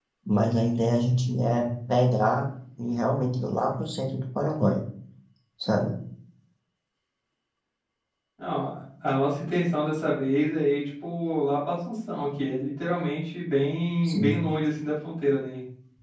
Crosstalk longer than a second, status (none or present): none